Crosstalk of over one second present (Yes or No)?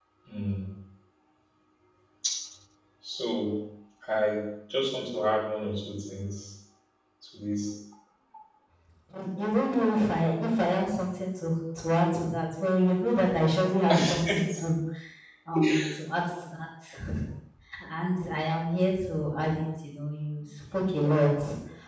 No